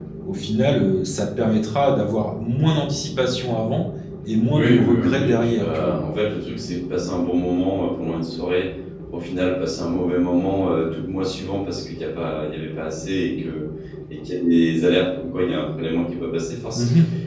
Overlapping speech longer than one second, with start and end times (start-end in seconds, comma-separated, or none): 4.5-6.0